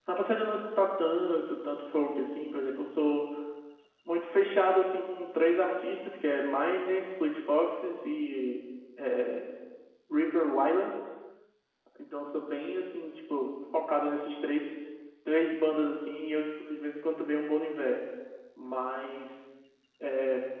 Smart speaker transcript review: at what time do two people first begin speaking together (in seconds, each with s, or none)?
none